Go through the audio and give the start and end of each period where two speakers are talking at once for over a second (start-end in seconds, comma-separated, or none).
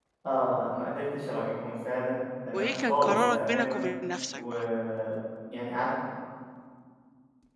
2.5-3.8